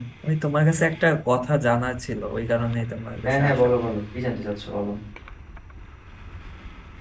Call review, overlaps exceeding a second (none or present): none